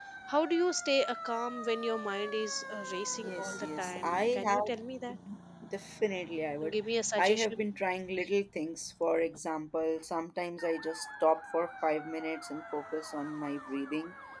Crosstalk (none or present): present